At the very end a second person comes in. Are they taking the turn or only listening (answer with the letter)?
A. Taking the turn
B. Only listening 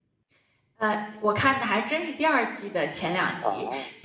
B